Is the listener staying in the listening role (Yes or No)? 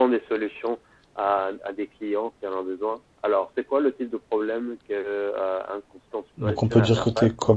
No